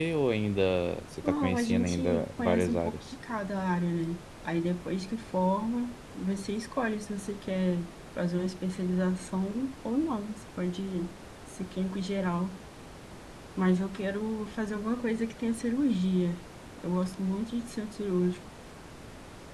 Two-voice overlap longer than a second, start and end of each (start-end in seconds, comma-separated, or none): 1.2-3.0